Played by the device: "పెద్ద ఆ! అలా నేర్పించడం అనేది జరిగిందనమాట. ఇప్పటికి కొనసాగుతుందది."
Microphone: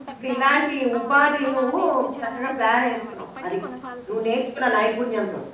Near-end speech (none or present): present